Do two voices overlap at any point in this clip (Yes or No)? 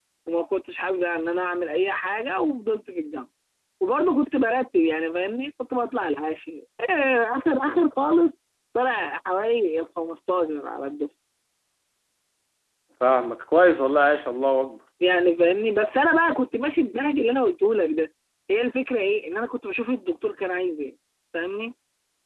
No